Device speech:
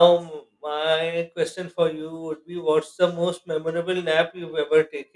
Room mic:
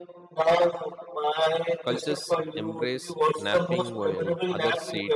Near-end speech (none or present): present